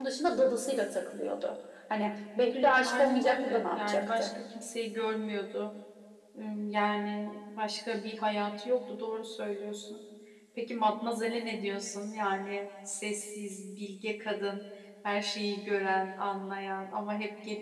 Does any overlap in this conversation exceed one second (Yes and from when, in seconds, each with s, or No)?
Yes, from 2.8 s